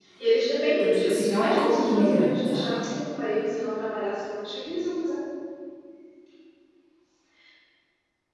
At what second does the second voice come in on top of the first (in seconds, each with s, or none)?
0.8 s